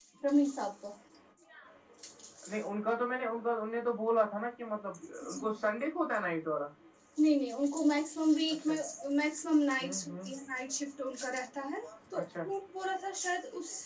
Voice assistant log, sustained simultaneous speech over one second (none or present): none